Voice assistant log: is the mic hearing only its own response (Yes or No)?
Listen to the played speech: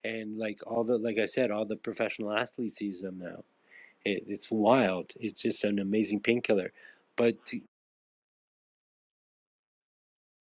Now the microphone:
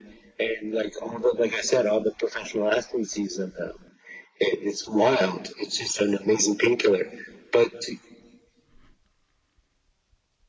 Yes